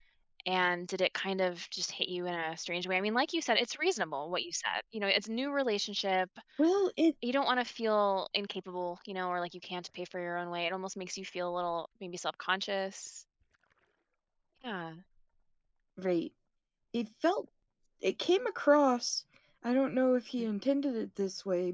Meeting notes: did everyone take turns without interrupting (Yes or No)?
Yes